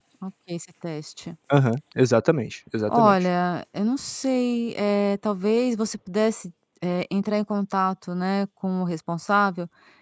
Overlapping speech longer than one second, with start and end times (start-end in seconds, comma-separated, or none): none